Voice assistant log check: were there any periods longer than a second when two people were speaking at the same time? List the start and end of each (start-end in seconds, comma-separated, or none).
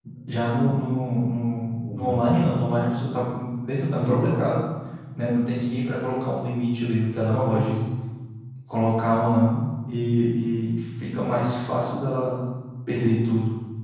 none